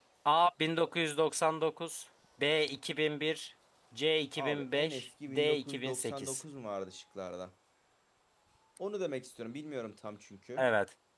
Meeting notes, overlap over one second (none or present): present